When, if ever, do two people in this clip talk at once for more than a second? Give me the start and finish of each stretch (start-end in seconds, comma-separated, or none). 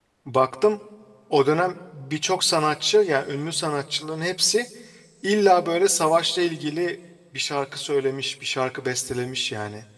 none